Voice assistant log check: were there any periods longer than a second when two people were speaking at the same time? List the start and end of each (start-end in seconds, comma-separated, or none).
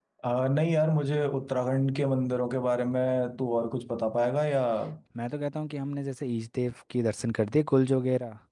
none